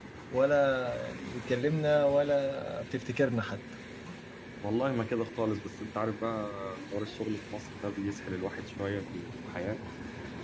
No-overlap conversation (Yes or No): Yes